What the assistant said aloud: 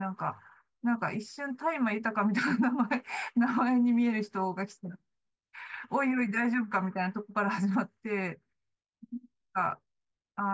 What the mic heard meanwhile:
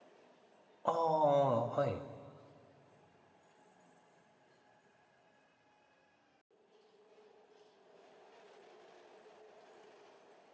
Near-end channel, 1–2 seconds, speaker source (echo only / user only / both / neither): user only